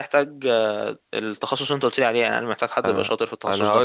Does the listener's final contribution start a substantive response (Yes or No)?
Yes